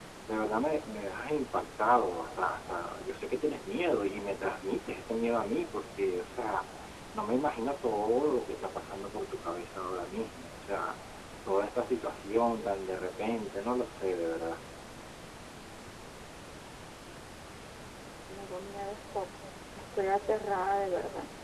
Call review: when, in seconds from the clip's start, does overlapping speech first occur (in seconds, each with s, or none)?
none